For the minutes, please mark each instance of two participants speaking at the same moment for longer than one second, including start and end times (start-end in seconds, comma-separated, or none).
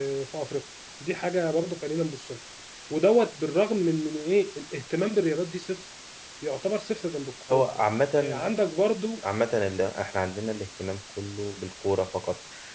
none